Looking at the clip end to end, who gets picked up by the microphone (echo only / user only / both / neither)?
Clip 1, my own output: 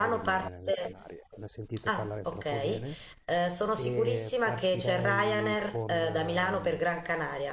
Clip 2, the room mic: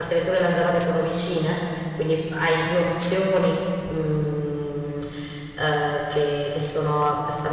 user only